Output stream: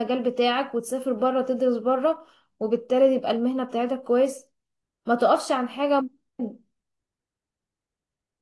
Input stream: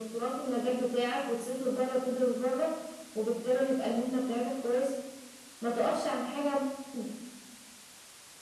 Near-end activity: none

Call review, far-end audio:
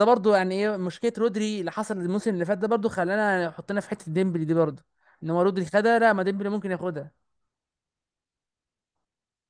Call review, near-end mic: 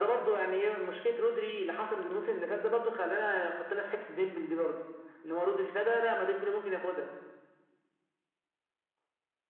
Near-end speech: none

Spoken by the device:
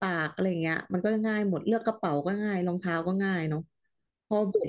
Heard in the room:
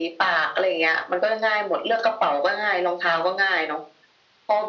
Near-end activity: none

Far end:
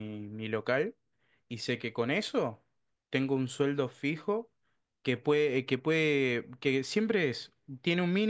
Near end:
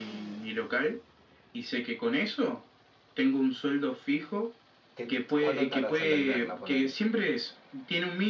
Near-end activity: present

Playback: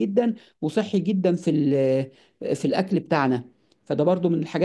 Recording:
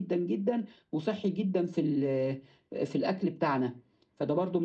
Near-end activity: none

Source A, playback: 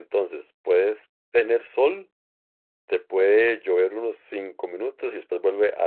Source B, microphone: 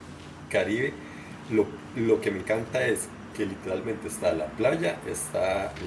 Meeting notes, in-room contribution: present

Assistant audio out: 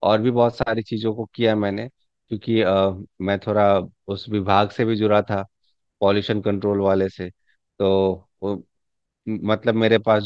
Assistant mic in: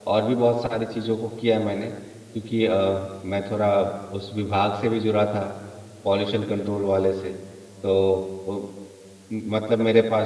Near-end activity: none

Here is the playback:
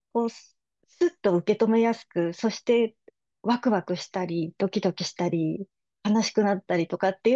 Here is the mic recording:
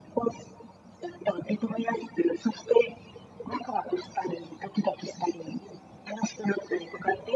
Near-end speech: none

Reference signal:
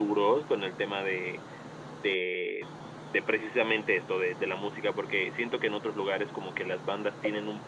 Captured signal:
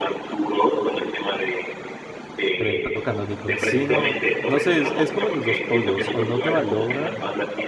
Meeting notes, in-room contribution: present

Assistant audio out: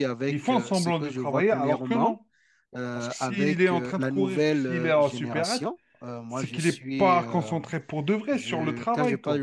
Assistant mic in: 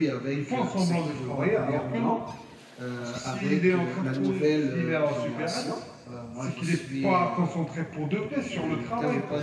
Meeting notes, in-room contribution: none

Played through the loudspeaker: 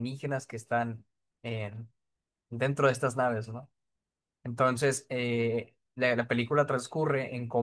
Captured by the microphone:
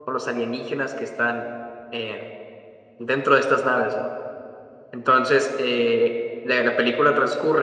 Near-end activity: none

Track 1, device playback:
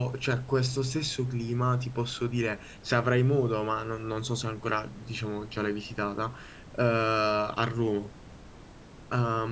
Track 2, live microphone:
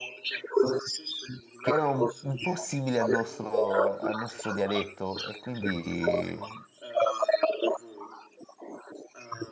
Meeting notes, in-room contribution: present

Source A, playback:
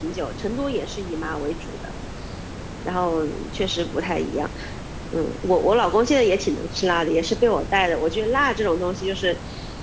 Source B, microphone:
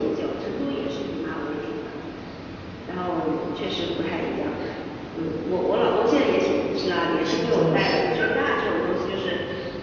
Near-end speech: present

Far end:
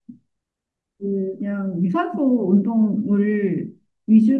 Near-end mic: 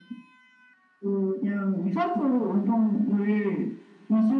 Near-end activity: none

